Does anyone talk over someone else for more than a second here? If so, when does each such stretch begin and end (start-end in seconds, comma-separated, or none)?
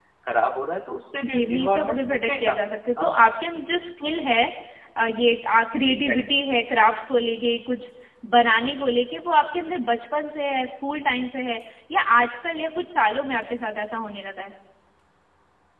1.3-2.6